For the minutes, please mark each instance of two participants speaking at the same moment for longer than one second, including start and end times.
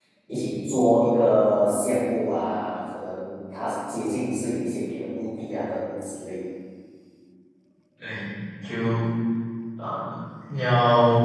none

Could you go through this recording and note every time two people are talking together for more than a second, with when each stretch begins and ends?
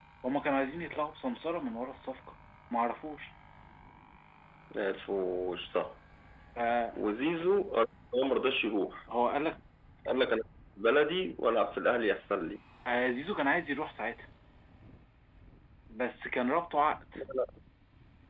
none

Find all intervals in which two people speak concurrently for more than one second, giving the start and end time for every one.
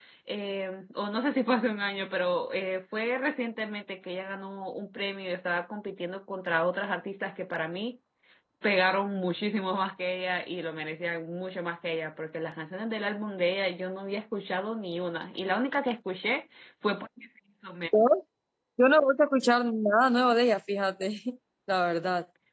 none

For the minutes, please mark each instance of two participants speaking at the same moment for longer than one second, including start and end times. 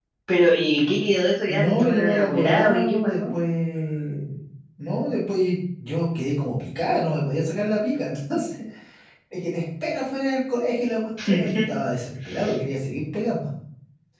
1.5-3.3

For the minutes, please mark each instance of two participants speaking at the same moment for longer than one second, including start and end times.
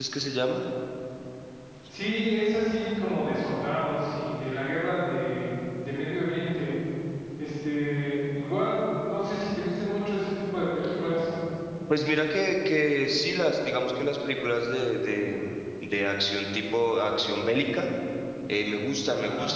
none

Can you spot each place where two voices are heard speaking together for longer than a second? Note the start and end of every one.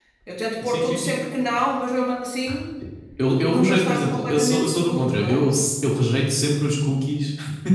3.5-5.5

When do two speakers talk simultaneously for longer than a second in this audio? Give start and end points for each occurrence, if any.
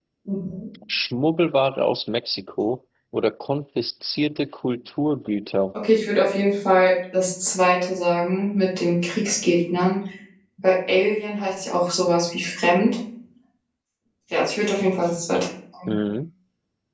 none

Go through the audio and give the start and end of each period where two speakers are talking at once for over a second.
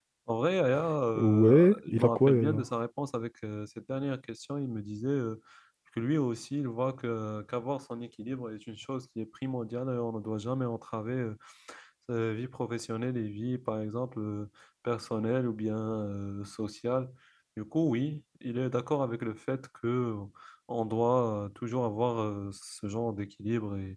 1.1-2.6

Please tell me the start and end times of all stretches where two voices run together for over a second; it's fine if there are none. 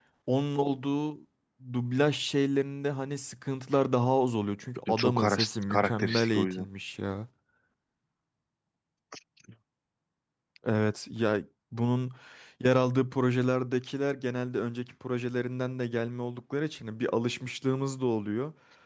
5.0-6.7

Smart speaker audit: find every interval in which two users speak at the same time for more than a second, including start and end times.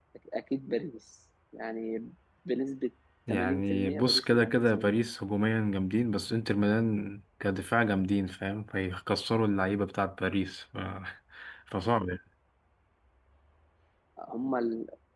3.3-5.0

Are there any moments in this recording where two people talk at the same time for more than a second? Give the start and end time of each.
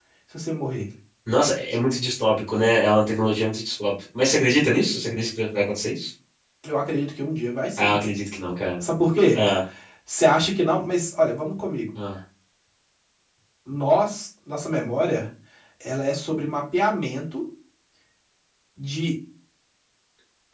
none

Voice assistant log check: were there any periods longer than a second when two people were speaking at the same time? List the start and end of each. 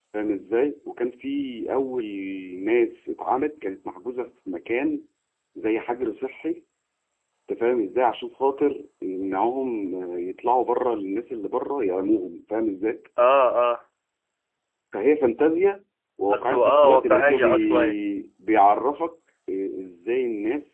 16.3-17.9

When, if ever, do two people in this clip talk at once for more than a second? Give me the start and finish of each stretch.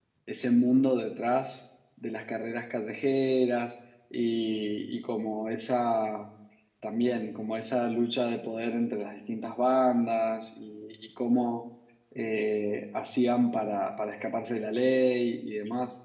none

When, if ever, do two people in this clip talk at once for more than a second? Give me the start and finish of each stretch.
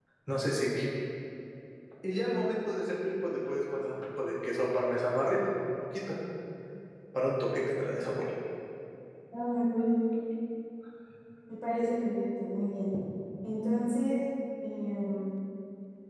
none

